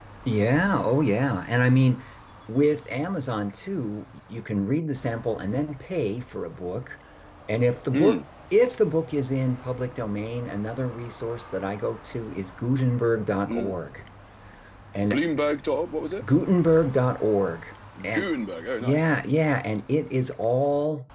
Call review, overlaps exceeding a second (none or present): none